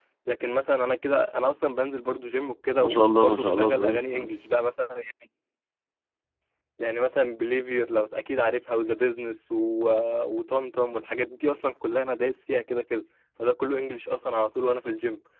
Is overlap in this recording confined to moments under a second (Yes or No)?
No